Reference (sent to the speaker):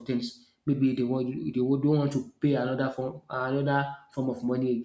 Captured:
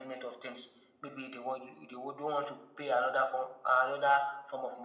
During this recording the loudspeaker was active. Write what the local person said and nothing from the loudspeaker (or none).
none